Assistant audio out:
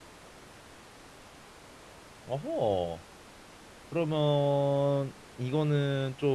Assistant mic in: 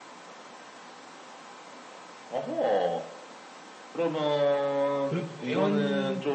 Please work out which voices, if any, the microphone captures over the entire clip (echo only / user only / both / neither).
both